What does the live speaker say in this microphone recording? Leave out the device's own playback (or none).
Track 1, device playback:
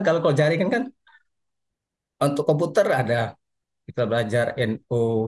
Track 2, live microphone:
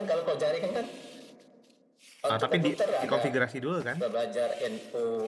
Ah, tapi di dikonfigurasi dulu kan?